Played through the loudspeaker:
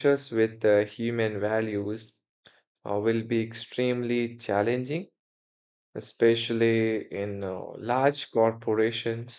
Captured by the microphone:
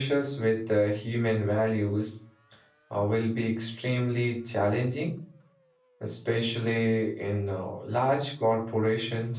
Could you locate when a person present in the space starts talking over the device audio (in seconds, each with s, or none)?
none